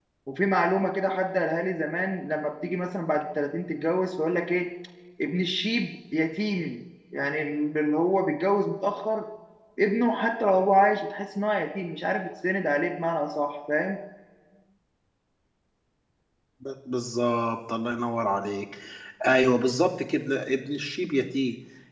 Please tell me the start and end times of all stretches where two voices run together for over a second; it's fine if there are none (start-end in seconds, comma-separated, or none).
none